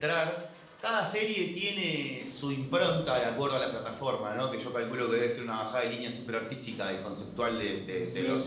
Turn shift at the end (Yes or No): Yes